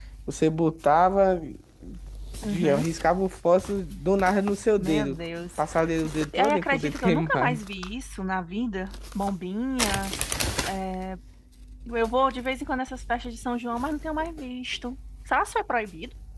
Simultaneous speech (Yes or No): Yes